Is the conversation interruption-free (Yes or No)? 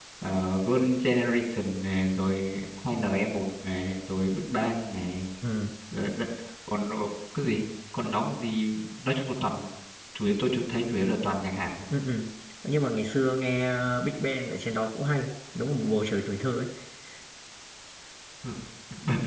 Yes